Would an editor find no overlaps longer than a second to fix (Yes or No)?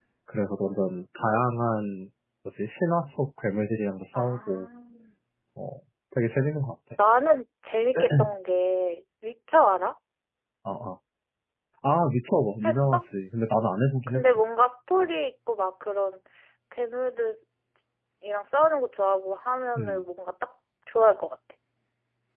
Yes